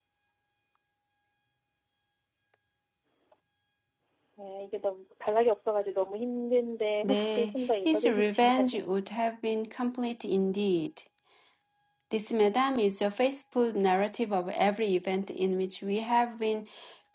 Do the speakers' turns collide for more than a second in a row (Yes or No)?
Yes